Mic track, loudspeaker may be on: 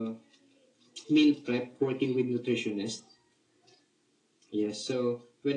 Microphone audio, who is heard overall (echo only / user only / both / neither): echo only